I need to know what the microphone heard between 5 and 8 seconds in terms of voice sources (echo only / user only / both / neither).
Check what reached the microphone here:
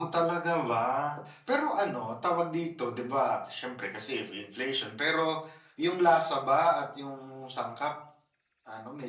echo only